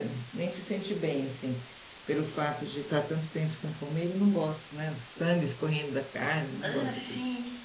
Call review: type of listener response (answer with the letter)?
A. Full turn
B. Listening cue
A